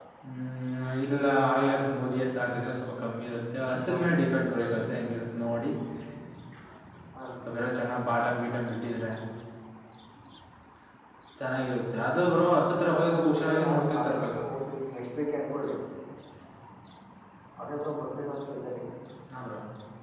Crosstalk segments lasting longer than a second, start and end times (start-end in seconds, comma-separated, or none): 12.8-14.3